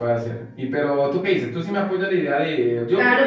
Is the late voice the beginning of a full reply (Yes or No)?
Yes